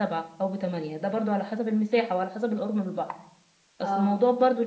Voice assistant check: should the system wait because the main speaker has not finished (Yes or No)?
Yes